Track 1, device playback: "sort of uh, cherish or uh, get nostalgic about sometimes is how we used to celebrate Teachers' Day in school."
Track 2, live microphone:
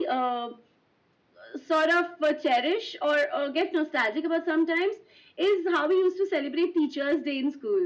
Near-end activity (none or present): none